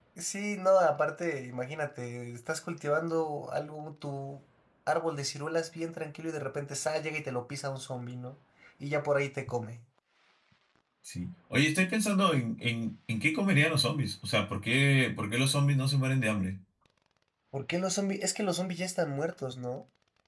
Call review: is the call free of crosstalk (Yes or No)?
Yes